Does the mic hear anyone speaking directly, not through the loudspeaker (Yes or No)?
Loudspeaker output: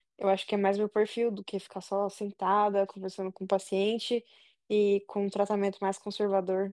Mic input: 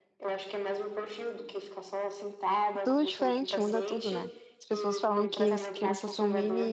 Yes